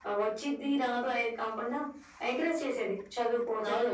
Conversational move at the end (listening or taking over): taking over